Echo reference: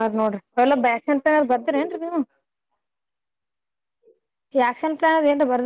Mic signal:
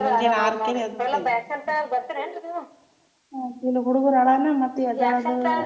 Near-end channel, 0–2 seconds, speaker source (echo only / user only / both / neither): both